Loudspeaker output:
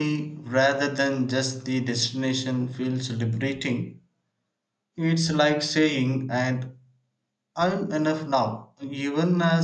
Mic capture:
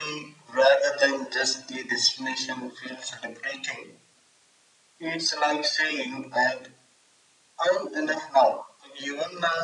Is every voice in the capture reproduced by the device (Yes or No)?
Yes